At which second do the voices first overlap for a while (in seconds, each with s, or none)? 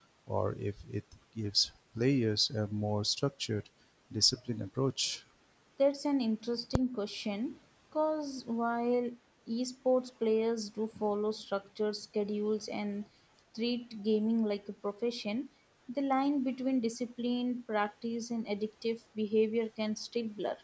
none